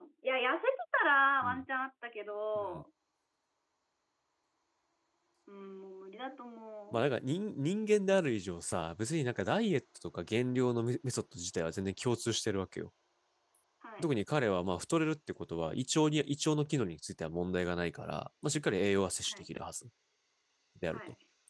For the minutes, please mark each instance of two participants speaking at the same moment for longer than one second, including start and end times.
none

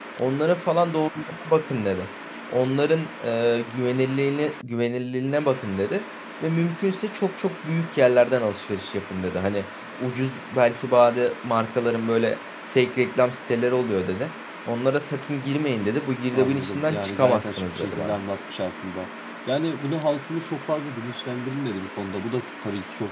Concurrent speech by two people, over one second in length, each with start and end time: 16.3-18.2

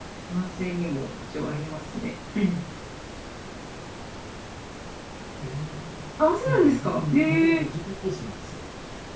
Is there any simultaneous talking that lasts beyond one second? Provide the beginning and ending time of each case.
6.4-7.7

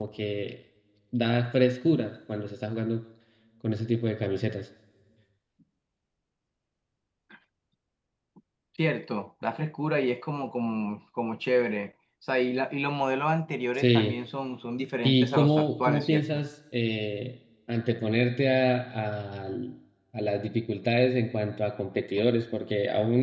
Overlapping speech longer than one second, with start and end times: 15.0-16.2

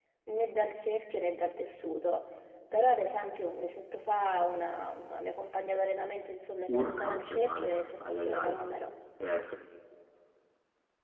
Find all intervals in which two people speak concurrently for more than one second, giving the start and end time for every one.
6.7-8.6

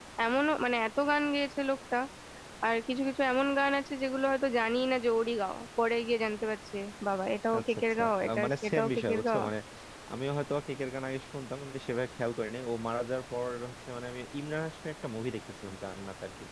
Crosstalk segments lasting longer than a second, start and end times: 7.6-9.4

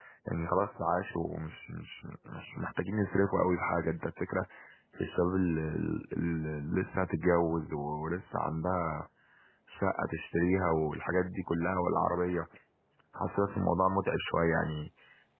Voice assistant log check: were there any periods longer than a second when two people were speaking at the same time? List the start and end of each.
none

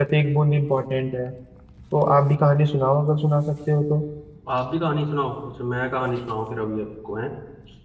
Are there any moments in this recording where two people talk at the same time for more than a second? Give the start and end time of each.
none

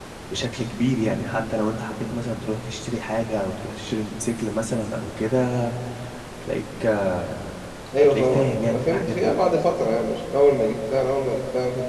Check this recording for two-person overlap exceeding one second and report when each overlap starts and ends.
8.0-9.4

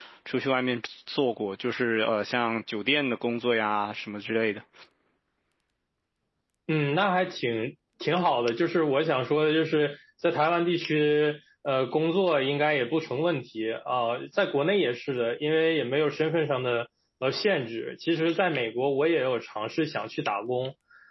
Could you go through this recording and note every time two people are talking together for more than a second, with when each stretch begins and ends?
none

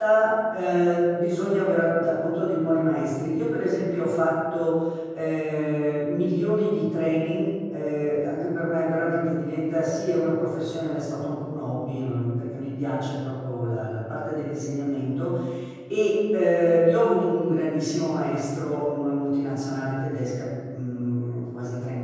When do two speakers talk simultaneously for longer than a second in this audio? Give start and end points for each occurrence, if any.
none

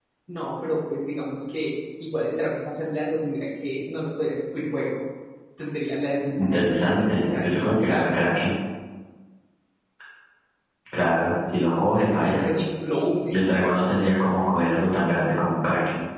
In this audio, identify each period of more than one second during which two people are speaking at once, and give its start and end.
6.4-8.2

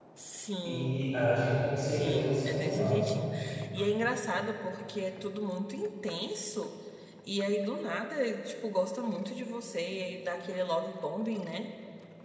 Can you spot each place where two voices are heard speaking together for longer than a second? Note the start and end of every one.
1.8-3.1

